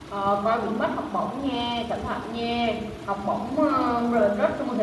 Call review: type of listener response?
listening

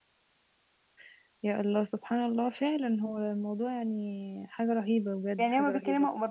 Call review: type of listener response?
taking over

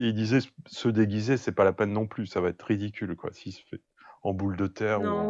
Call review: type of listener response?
taking over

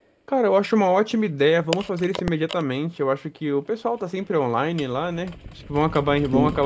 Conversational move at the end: listening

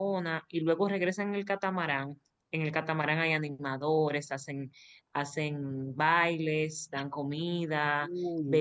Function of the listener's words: listening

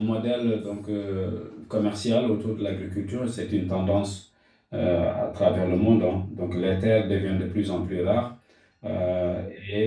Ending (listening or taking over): listening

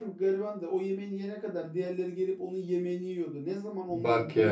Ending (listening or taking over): listening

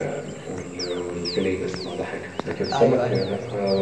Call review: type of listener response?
listening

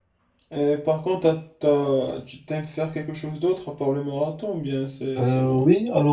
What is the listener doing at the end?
taking over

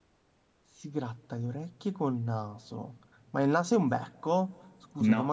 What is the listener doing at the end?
listening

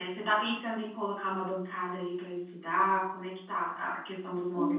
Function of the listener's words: taking over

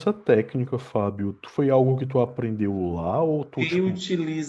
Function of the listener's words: taking over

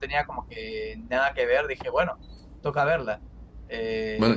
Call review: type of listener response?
listening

